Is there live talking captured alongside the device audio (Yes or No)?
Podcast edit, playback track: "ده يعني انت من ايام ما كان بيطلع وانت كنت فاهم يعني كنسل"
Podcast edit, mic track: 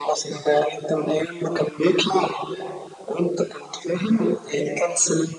No